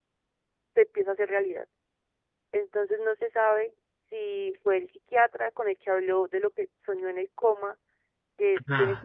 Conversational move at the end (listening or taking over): taking over